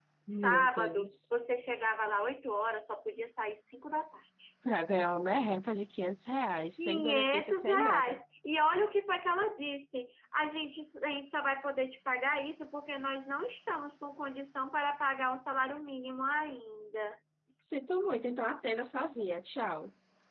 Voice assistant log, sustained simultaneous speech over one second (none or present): present